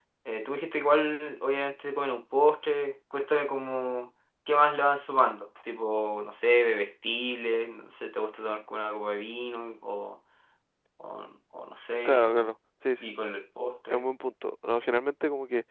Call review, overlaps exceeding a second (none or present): none